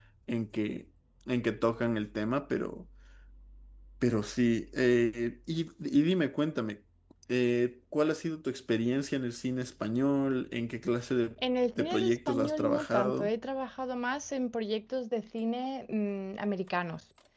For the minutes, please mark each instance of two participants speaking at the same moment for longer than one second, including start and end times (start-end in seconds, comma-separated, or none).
11.8-13.3